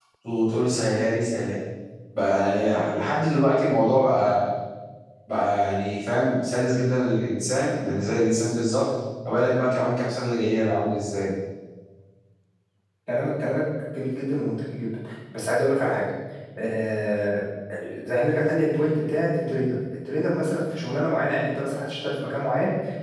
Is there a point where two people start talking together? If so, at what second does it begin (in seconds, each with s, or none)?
none